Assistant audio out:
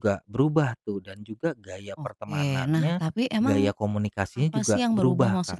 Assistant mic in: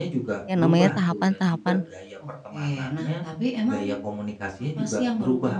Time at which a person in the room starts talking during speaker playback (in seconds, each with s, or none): 0.4 s